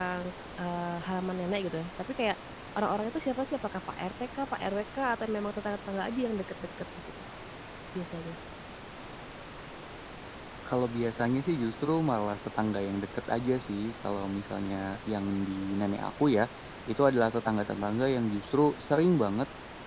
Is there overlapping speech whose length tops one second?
No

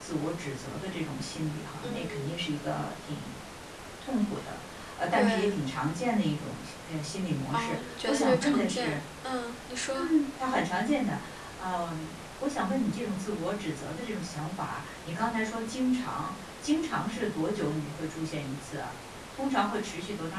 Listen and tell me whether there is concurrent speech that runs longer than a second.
Yes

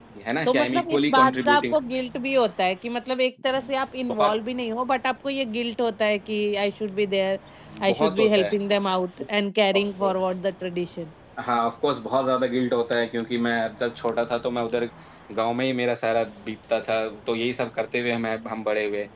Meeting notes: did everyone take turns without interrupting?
No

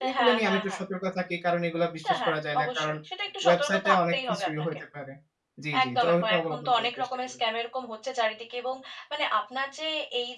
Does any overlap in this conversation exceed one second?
Yes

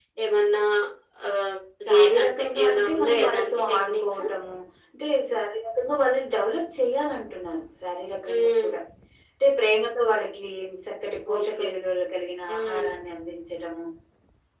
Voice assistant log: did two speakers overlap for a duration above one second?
Yes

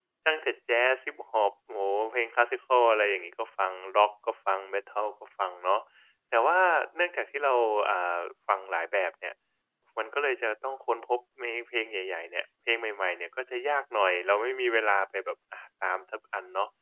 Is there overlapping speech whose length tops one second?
No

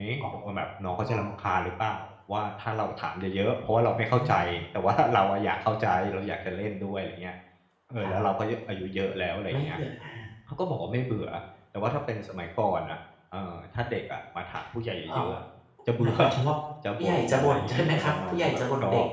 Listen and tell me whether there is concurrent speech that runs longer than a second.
Yes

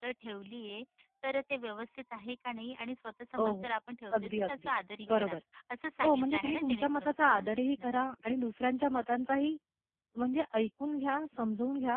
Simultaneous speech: Yes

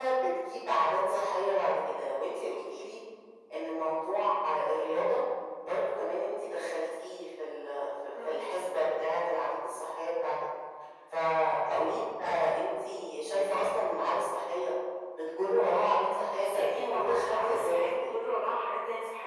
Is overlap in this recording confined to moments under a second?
No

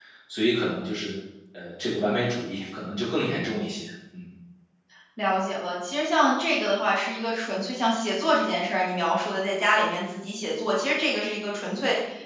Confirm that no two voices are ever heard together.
Yes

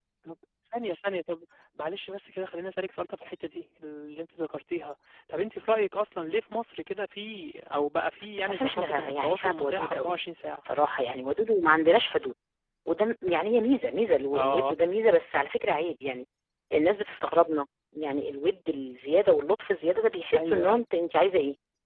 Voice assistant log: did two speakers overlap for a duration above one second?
Yes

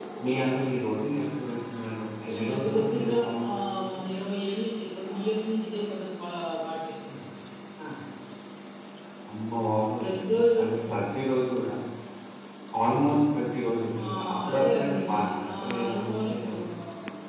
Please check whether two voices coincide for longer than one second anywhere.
Yes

